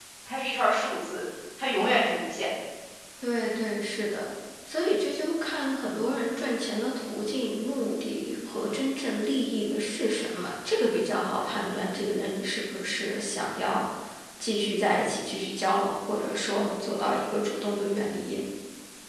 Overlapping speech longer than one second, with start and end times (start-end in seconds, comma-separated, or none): none